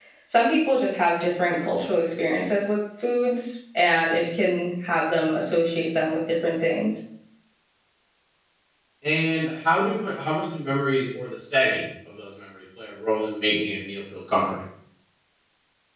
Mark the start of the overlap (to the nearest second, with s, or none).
none